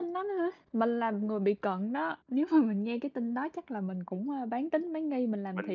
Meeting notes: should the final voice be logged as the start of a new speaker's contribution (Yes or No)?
Yes